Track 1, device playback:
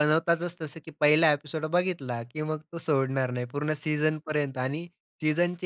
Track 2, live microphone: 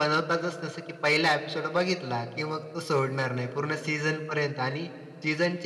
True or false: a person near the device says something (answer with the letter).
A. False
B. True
A